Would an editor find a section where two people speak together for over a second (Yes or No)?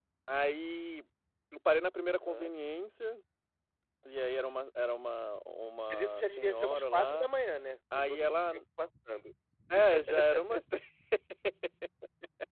Yes